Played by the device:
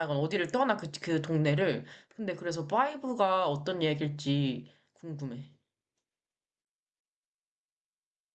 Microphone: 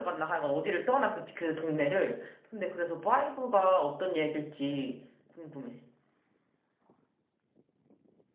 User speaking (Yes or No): No